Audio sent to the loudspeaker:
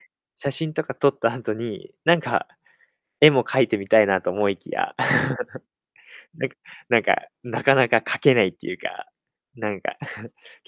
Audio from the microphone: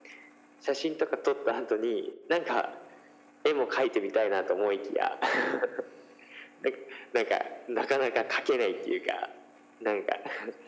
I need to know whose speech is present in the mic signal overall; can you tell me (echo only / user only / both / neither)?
echo only